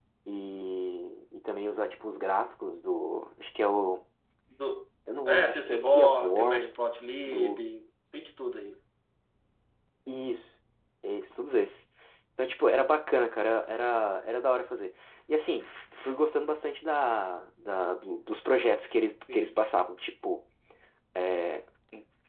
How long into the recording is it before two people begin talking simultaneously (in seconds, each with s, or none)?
5.3 s